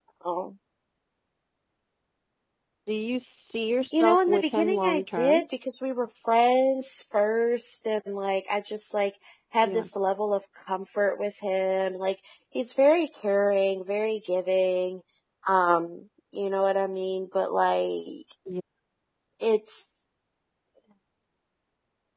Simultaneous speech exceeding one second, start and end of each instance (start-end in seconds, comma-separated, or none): 3.9-5.4